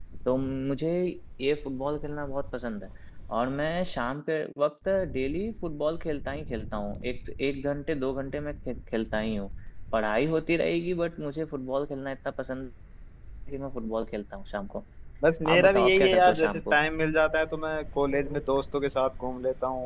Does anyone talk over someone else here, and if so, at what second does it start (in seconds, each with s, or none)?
15.4 s